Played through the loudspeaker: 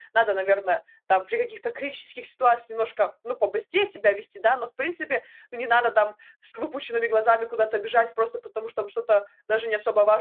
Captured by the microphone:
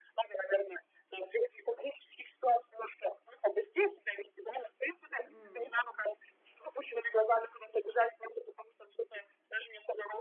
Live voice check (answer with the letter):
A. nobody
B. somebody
B